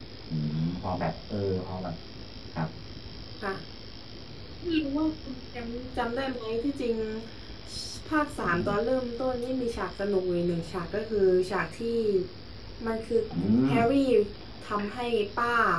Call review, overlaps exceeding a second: none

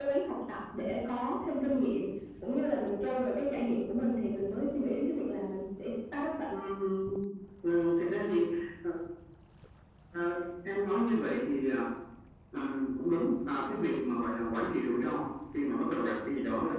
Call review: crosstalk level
none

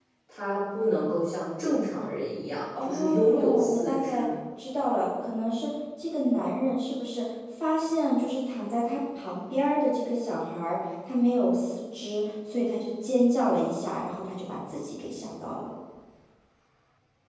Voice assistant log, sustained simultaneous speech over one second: present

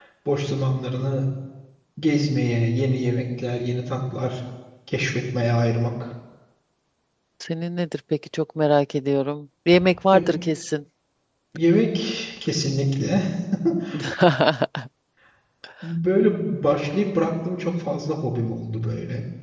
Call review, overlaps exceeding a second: none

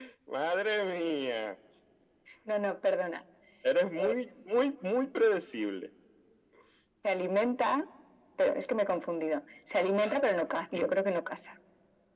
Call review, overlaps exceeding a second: none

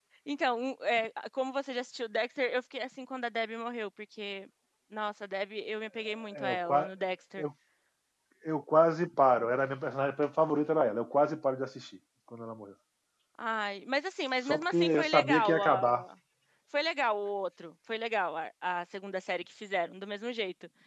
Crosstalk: present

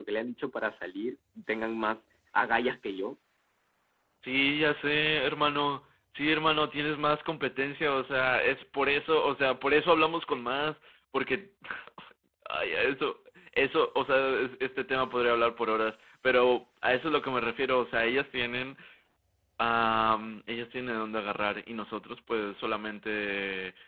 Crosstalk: none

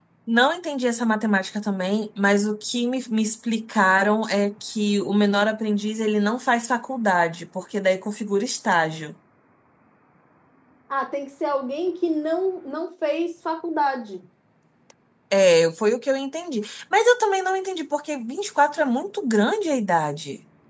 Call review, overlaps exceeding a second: none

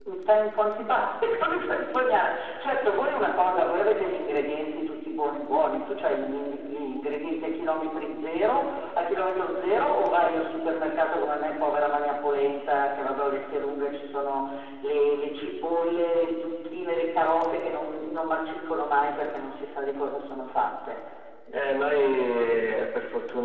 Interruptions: none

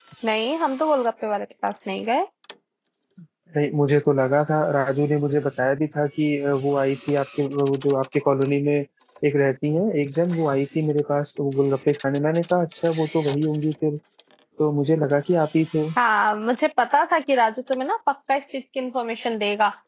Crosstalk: none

